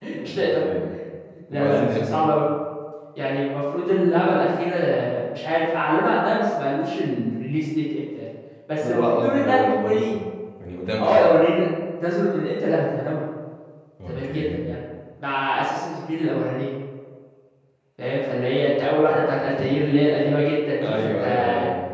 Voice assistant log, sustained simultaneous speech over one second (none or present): present